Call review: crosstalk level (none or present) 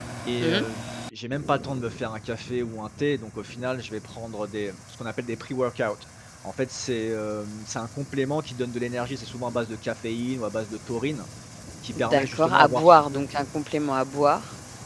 present